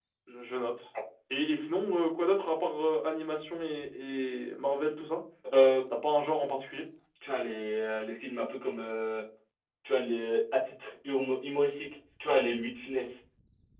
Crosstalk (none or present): none